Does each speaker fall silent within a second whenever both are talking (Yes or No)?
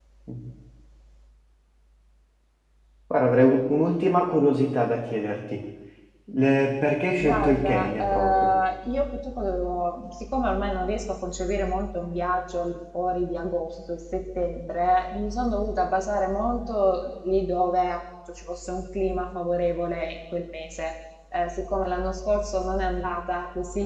No